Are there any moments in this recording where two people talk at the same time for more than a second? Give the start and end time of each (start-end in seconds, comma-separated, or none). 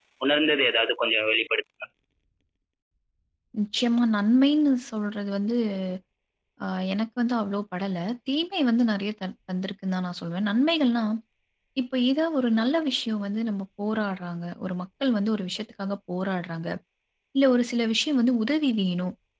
none